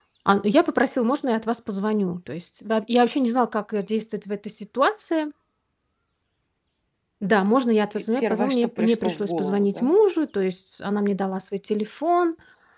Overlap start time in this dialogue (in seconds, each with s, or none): 8.0 s